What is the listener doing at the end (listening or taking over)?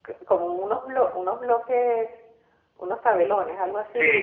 taking over